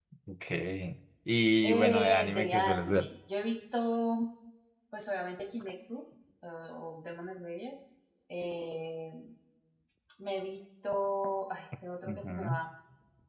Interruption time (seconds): 1.6 s

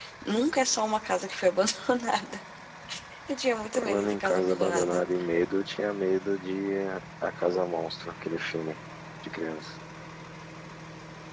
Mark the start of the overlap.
3.8 s

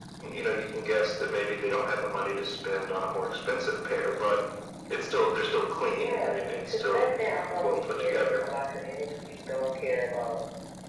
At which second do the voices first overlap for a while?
6.0 s

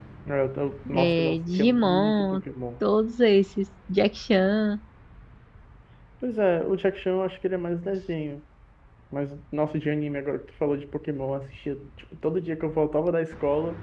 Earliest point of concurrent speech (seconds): 0.9 s

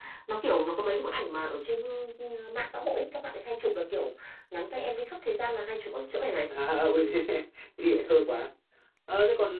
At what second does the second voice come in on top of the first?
none

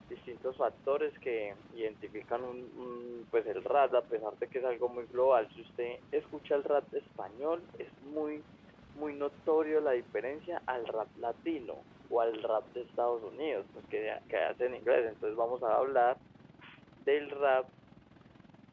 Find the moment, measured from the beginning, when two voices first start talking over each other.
none

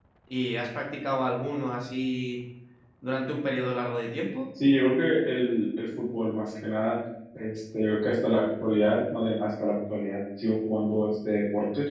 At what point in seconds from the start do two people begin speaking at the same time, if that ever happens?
none

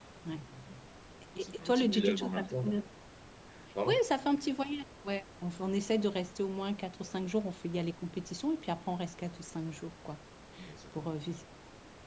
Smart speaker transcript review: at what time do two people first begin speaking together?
1.4 s

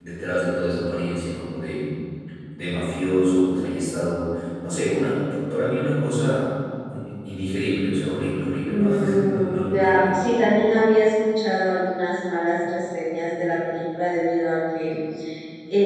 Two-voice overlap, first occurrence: 8.7 s

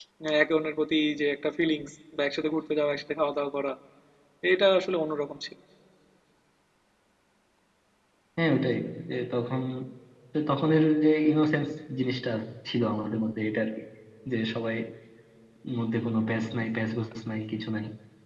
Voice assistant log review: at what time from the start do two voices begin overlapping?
none

